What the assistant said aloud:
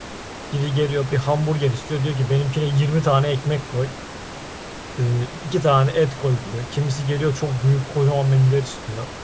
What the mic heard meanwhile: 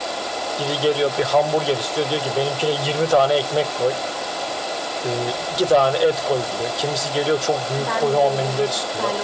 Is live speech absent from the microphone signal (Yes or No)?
No